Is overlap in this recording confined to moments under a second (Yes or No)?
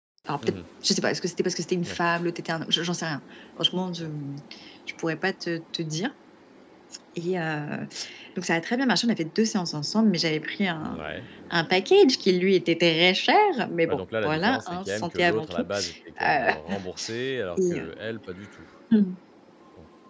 No